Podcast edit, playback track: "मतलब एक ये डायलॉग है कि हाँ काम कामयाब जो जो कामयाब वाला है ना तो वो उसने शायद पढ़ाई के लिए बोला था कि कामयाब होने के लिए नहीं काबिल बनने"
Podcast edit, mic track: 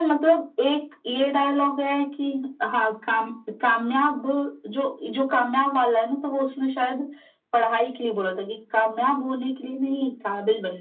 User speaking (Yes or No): No